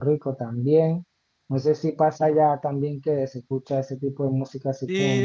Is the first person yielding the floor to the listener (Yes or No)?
Yes